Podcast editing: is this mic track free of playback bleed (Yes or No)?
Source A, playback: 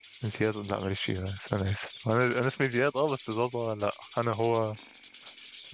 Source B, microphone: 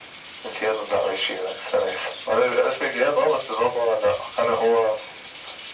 No